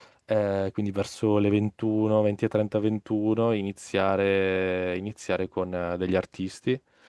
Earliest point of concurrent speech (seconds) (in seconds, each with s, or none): none